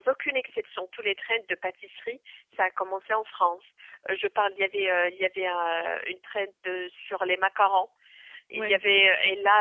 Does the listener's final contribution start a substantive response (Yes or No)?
No